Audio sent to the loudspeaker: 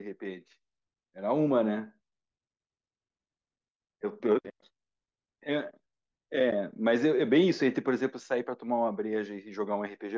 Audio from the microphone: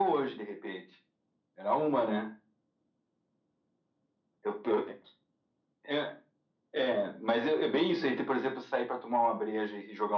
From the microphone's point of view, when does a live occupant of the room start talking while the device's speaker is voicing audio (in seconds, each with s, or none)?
none